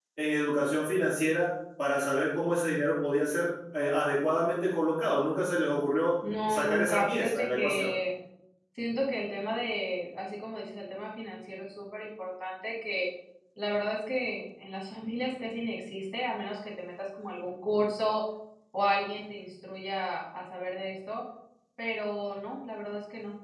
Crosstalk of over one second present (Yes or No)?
Yes